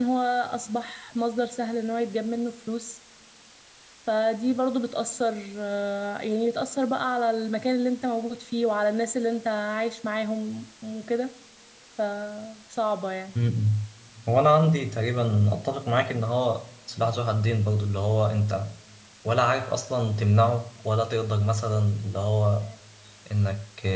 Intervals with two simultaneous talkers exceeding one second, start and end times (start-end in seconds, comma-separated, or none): none